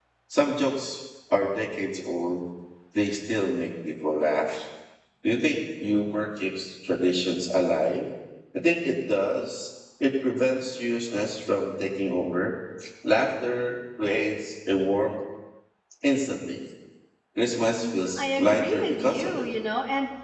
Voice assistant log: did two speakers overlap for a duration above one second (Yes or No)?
Yes